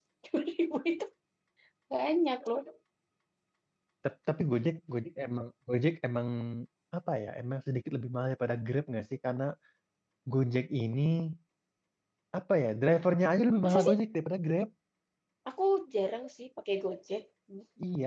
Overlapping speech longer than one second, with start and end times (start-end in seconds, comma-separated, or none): none